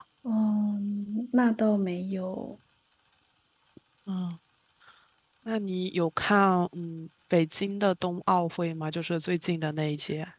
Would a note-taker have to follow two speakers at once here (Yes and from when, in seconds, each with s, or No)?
No